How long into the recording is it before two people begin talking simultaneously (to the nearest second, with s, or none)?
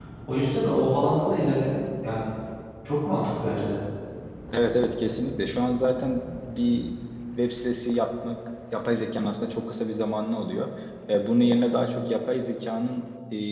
none